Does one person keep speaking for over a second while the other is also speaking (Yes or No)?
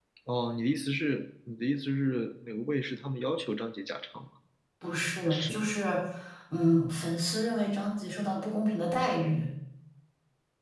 No